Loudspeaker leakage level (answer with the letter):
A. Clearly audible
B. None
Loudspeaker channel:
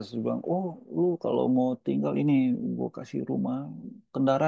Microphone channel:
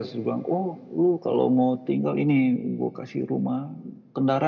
A